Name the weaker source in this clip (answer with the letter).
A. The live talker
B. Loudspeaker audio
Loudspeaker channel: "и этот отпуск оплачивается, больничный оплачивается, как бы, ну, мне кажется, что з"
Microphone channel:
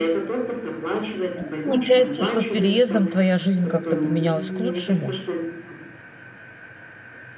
B